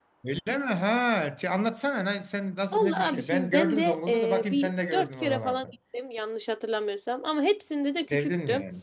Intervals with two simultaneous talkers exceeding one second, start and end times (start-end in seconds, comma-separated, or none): 2.7-5.7